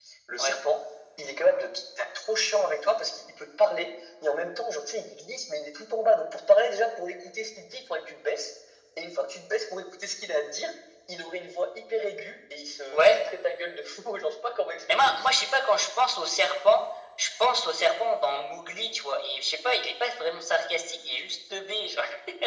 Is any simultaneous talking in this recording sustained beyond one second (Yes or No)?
No